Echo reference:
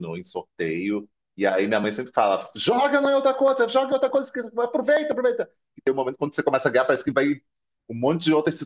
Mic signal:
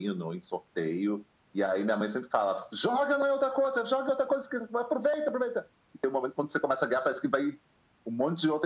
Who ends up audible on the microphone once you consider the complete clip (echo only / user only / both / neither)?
echo only